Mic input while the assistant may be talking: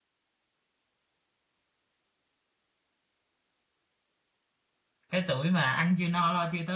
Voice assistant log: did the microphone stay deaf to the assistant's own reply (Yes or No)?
Yes